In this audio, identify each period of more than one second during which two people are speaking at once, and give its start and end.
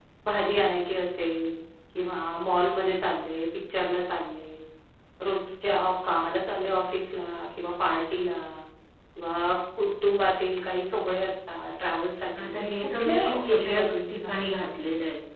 12.4-14.4

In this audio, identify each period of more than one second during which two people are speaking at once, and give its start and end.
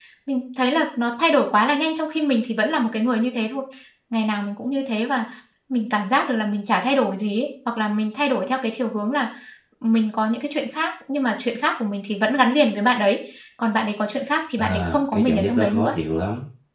14.6-16.0

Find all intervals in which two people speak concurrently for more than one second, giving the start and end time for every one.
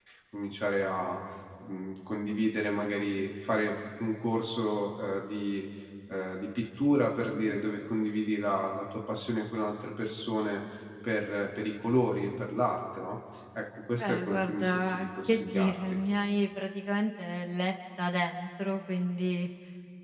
13.9-15.8

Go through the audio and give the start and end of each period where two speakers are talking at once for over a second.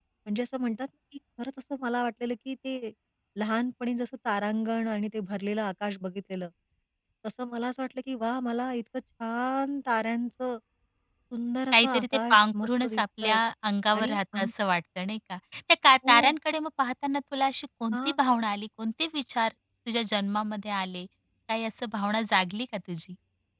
11.7-13.4

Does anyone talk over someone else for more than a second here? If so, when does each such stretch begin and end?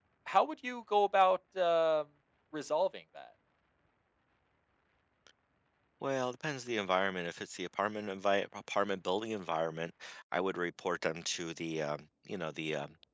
none

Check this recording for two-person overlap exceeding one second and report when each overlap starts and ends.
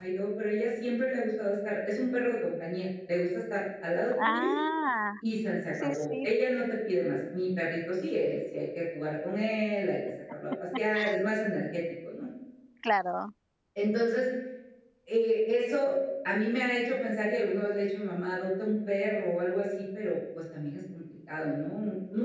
none

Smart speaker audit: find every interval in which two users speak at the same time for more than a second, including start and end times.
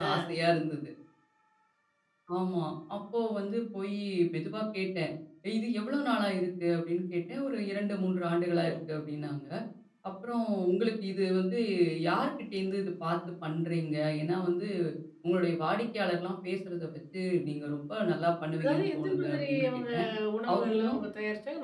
18.6-19.8

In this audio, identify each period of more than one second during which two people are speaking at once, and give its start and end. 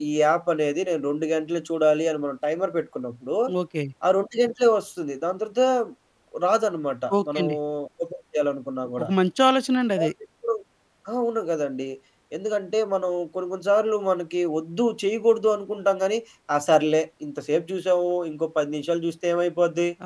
none

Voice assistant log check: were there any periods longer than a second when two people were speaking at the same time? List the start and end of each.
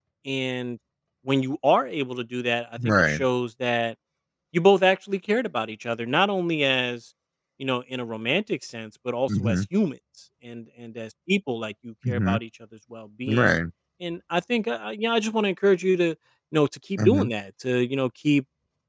none

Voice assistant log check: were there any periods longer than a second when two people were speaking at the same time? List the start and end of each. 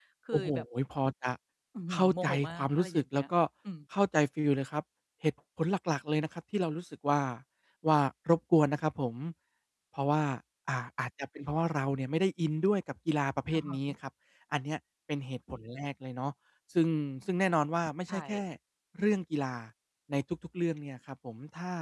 1.9-3.2

